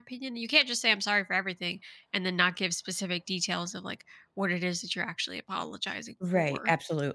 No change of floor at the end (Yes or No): No